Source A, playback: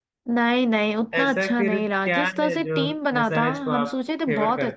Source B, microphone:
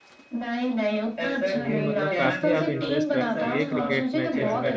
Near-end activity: present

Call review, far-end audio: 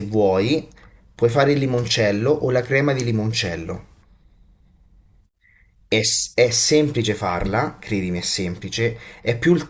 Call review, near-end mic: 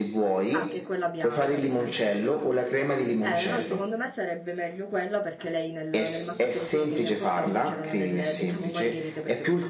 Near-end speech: present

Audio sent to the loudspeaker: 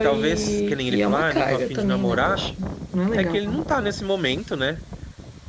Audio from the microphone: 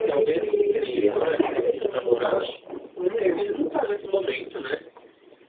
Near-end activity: none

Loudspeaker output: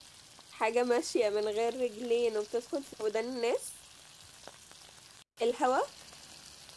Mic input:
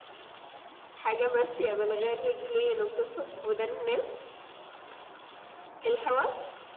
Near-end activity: none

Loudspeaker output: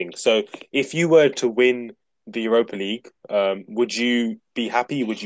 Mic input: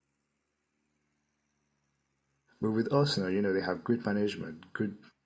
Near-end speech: present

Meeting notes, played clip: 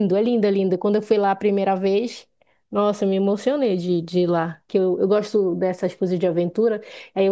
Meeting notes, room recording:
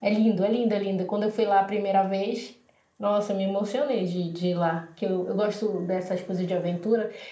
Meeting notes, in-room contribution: none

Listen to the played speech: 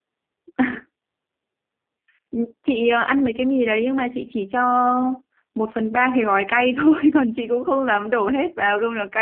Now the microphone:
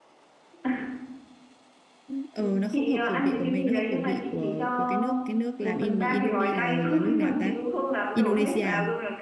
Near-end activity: present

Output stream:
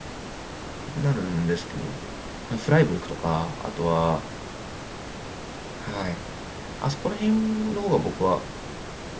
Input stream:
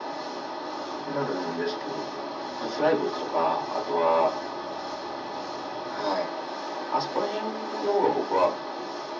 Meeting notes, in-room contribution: none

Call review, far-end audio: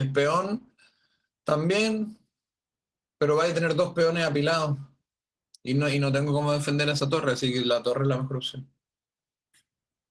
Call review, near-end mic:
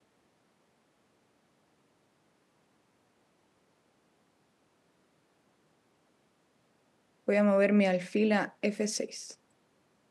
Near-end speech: present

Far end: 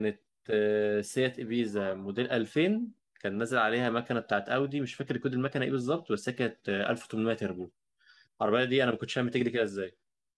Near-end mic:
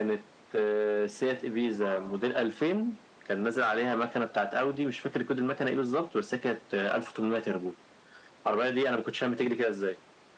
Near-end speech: none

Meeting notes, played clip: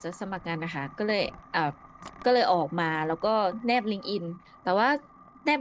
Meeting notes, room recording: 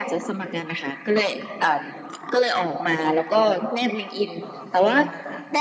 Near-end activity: present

